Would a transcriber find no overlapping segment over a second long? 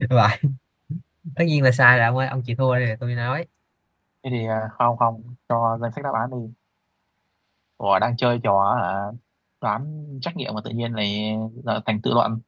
Yes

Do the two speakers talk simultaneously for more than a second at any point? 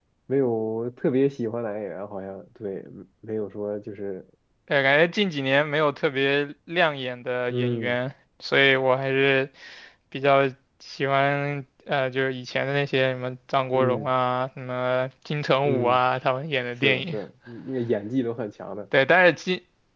No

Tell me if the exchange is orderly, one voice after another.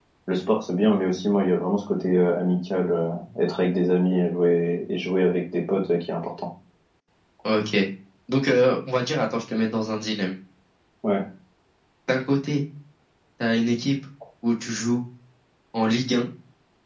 Yes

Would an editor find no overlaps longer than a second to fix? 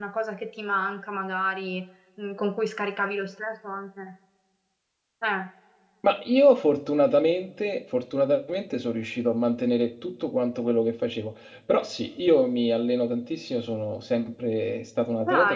Yes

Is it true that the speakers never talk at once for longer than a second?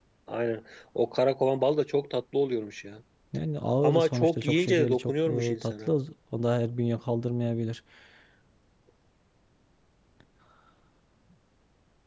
No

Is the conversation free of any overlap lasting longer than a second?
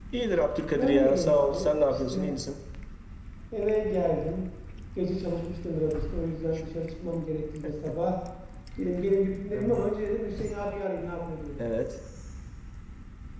No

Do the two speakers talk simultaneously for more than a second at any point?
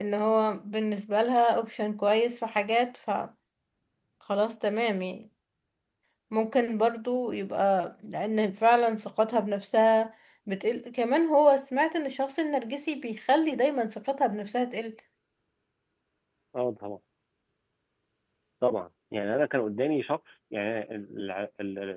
No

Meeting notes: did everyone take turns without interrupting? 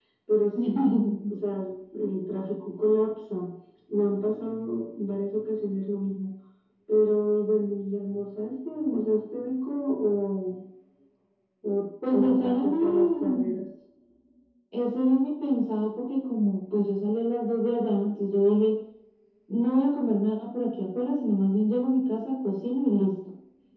No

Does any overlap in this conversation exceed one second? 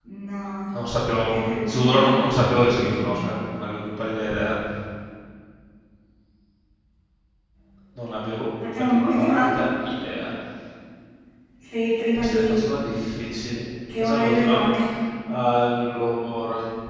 Yes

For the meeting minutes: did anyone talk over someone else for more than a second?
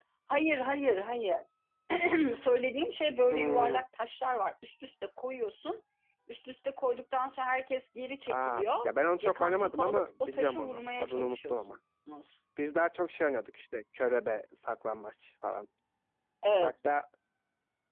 Yes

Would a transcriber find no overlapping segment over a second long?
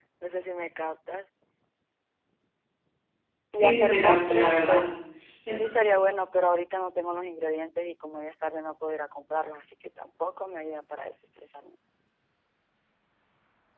No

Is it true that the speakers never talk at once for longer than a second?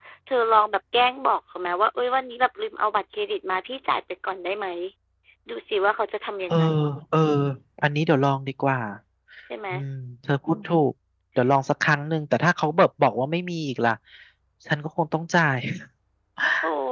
Yes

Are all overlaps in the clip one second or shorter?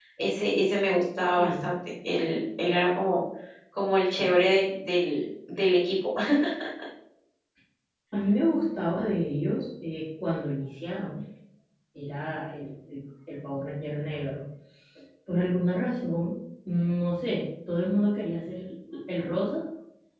Yes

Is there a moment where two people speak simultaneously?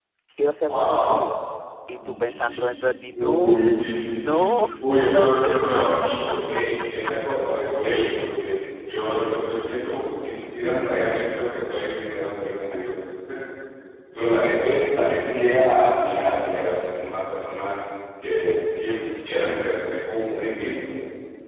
Yes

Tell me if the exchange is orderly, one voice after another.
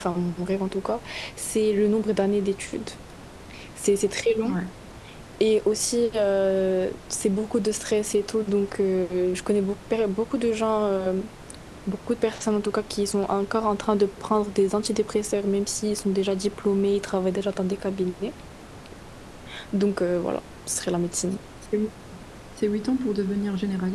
Yes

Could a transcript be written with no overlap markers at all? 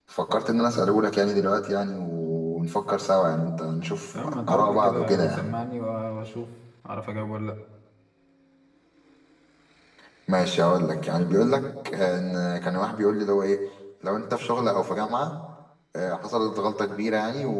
No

